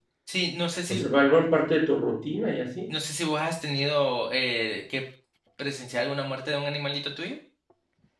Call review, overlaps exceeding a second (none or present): none